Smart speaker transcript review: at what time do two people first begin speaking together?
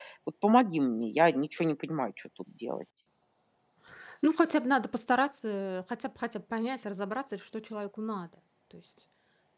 none

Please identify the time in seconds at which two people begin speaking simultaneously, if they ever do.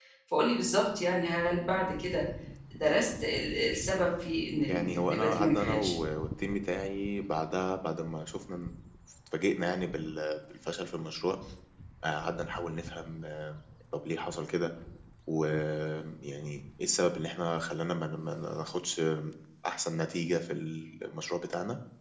4.7 s

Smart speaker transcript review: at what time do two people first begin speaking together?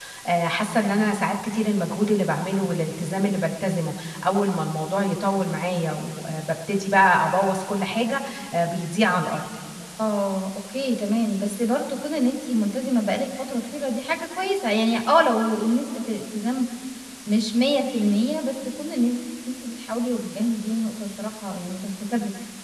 none

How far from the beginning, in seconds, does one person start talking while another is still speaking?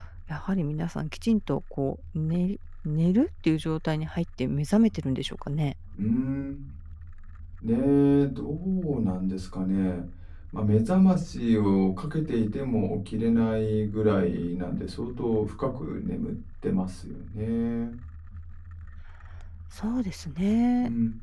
none

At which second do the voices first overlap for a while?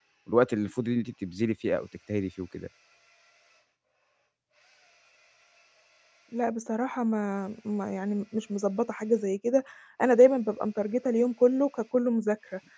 none

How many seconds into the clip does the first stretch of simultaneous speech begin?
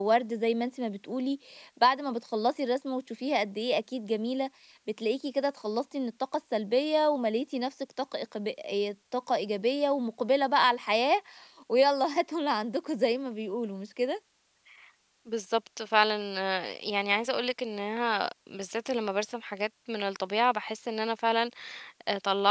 none

